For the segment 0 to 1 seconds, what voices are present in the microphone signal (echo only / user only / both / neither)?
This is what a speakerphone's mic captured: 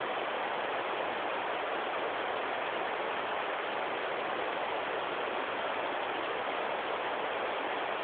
neither